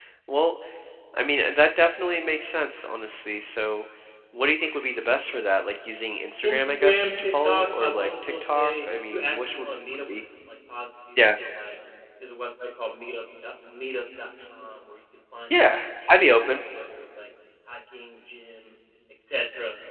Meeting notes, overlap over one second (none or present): present